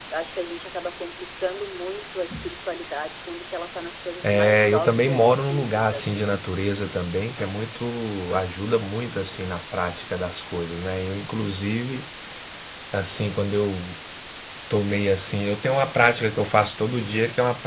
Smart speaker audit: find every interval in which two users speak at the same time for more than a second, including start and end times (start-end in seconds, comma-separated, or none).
4.2-6.4